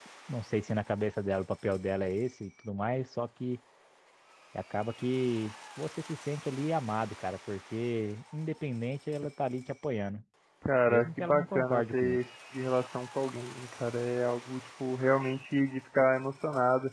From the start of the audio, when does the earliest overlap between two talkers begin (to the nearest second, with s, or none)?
11 s